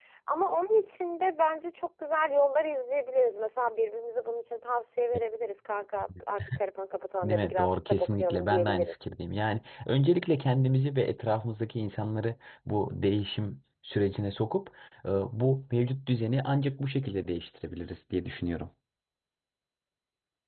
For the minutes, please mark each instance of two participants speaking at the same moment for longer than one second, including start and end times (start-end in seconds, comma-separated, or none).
7.2-8.9